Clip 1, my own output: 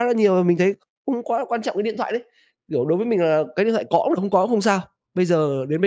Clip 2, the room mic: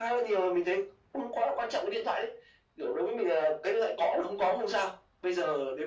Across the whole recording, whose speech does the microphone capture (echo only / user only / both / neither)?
echo only